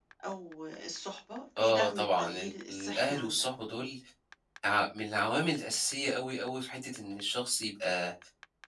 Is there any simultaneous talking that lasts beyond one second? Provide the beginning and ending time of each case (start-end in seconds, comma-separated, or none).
1.6-3.5